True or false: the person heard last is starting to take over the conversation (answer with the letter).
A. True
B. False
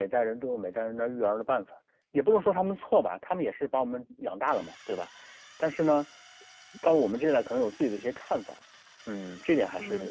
A